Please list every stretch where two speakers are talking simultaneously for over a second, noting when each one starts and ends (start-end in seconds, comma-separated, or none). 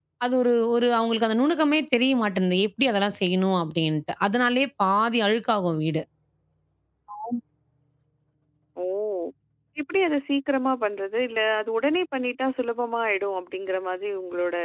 none